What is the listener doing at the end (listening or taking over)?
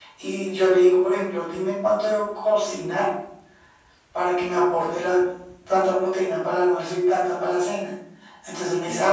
listening